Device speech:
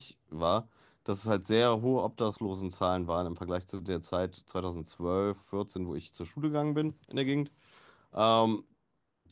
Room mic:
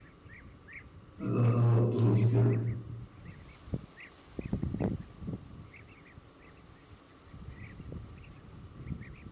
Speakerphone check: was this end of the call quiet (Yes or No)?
No